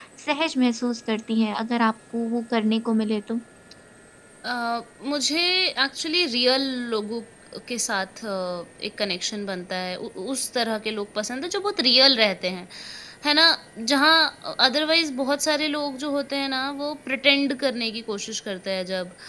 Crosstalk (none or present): none